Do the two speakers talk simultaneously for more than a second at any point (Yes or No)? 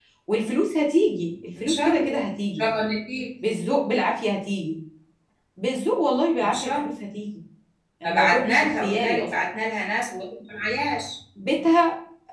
Yes